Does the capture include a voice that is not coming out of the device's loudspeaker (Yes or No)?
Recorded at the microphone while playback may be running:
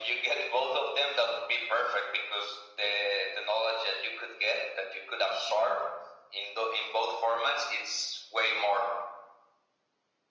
No